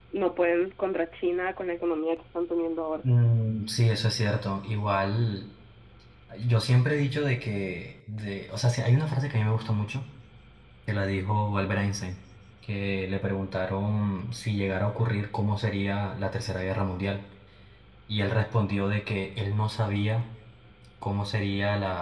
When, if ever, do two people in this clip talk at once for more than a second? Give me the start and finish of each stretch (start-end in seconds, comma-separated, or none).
none